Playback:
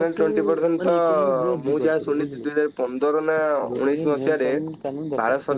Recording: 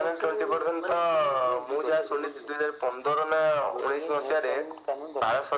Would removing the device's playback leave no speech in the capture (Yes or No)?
Yes